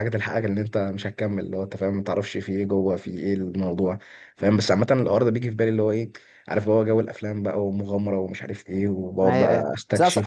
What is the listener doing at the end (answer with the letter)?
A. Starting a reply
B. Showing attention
A